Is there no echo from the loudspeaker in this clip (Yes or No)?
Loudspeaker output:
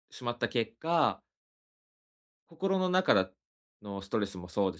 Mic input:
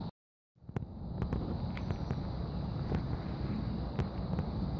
Yes